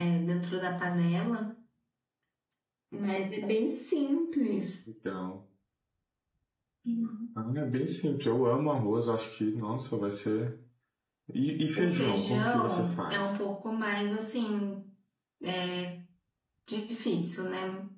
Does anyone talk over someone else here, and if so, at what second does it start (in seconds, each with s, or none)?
11.8 s